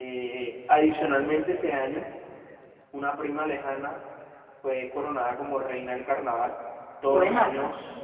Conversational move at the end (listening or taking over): listening